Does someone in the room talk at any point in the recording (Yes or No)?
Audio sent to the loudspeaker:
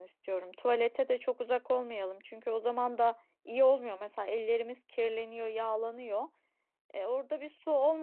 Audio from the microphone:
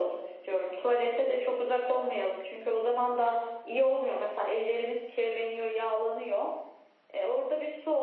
No